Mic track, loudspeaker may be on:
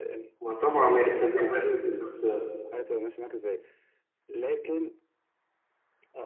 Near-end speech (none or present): present